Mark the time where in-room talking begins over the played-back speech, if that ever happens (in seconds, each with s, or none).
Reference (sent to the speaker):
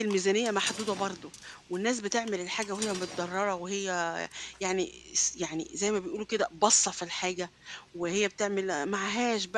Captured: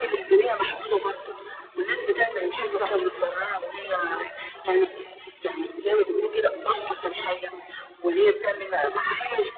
2.6 s